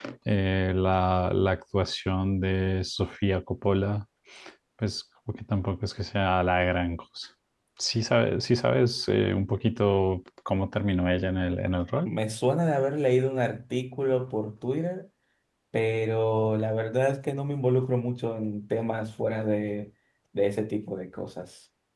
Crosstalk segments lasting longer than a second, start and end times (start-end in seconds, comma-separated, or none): none